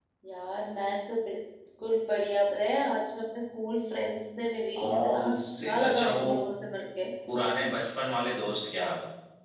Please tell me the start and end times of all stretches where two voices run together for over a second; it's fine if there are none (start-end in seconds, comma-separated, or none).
4.8-6.3